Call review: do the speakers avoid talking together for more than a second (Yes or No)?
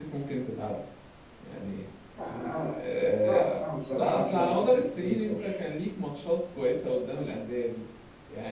No